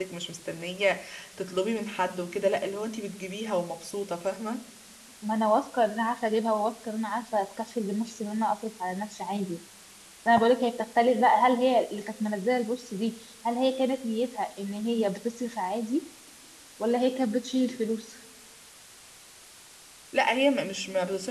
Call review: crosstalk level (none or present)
none